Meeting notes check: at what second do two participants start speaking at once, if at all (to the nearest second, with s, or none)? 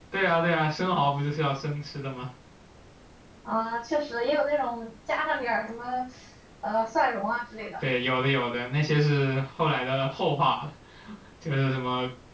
none